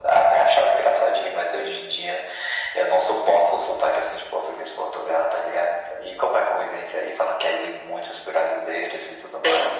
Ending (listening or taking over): taking over